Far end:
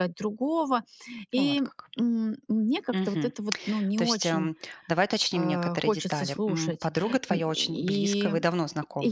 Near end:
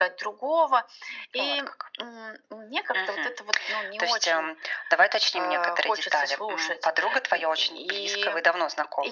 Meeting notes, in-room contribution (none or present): none